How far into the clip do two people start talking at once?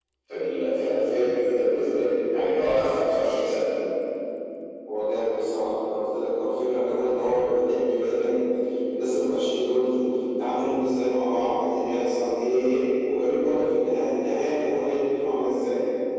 none

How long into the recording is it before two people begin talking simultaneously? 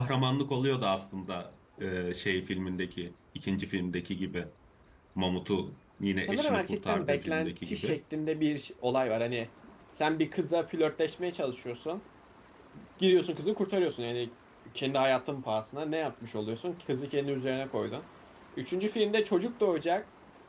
6 s

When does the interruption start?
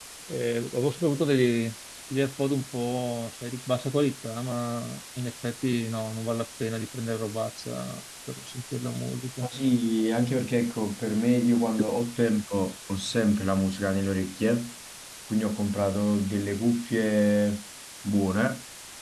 none

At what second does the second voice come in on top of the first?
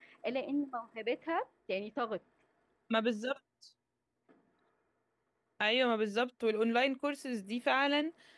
none

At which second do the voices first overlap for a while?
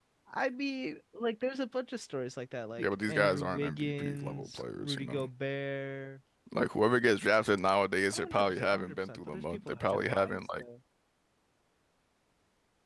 3 s

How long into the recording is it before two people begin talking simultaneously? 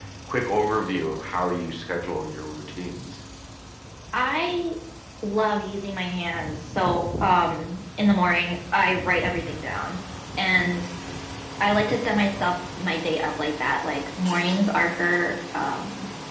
none

